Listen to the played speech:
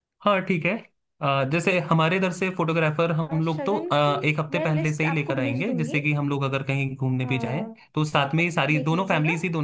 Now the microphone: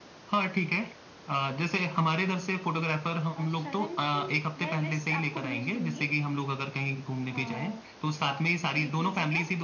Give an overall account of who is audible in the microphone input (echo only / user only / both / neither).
echo only